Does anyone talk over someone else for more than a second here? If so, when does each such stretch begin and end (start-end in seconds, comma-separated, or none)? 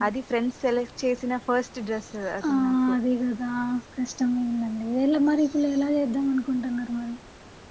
none